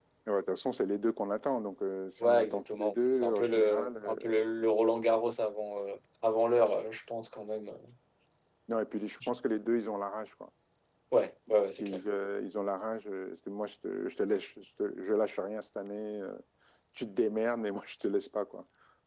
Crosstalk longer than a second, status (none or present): present